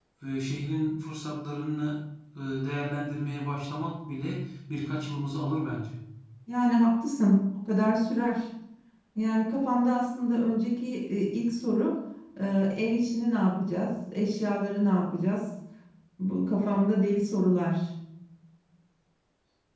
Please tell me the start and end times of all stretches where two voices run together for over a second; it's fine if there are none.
none

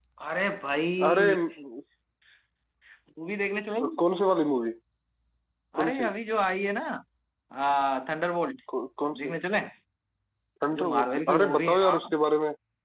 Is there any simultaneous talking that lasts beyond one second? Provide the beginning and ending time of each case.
10.7-12.1

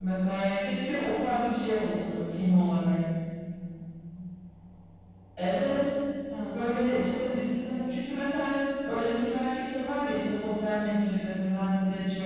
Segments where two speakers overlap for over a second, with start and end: 6.5-7.8

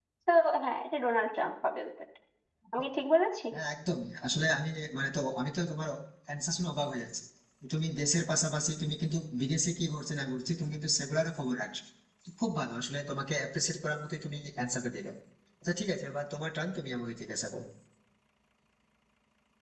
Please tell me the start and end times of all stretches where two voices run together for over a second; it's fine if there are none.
none

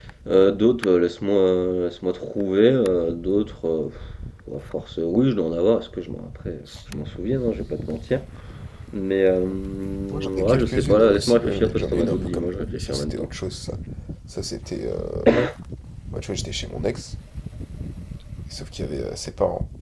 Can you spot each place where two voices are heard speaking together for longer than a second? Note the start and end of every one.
10.3-13.3

